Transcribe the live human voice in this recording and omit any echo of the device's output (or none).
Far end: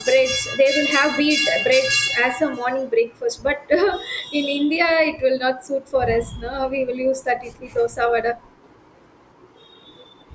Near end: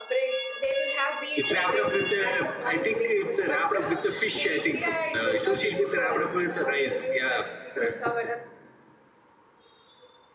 It's wrapped up with uh, I think it's uh, wrapped up with the fish. I think uh, sushis with wrapped up with the rice. Yeah, ra- yes,